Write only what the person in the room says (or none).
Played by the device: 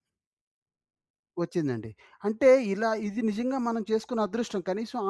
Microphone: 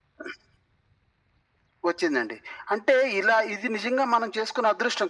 none